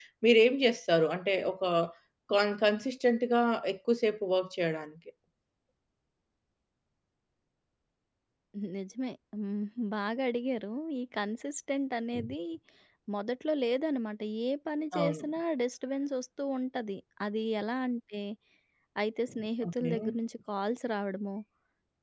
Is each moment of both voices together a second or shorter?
Yes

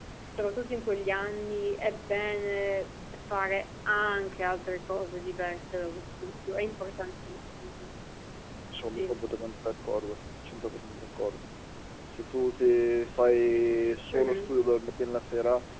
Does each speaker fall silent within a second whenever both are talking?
Yes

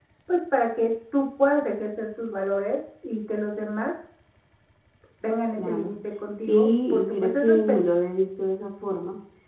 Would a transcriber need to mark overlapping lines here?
Yes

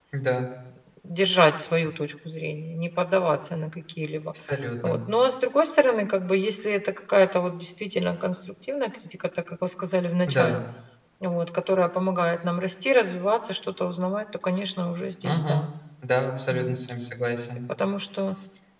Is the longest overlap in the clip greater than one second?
No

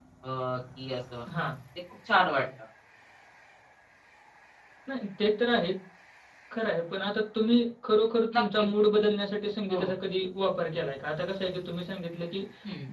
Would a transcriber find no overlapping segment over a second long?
Yes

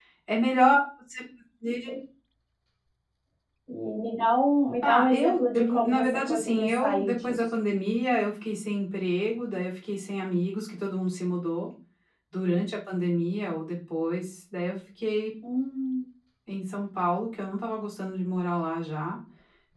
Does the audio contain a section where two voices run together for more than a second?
Yes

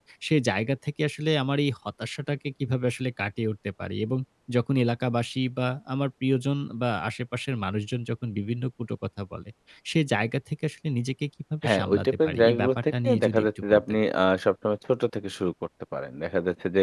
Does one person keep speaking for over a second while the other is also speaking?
Yes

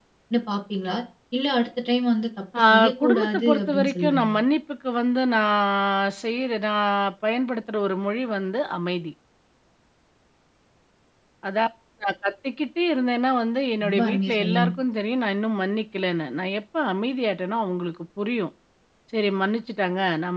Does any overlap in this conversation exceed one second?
Yes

